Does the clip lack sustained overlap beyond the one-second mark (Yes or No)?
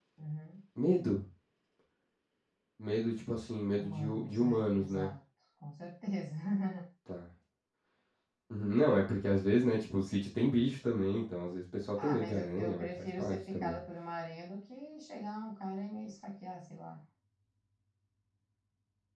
No